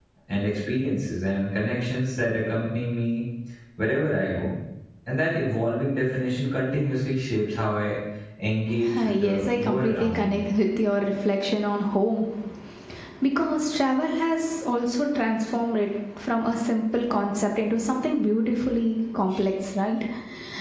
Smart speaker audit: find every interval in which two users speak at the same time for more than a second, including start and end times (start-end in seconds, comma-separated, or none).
8.9-10.4